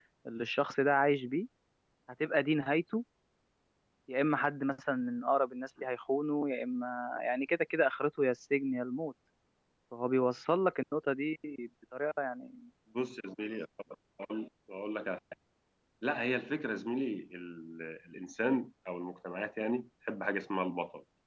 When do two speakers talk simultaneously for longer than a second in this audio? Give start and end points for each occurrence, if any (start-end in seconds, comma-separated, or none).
none